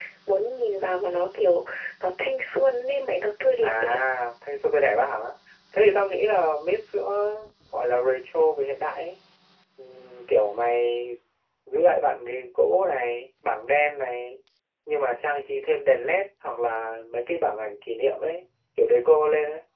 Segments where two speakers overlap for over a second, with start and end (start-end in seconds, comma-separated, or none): none